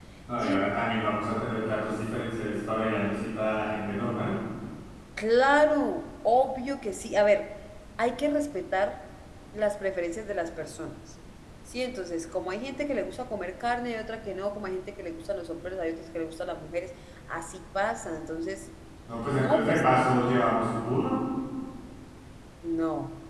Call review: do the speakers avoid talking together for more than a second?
Yes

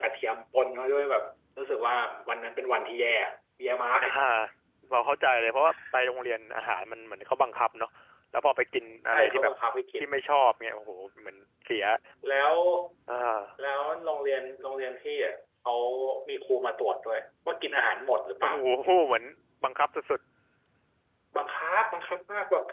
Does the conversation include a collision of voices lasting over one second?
No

